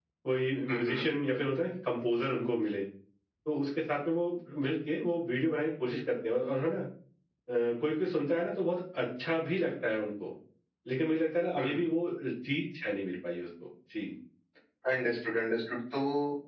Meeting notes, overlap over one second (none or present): none